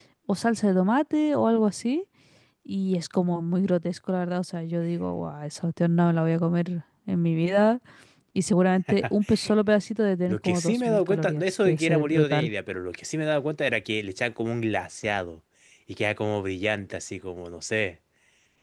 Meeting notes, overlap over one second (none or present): present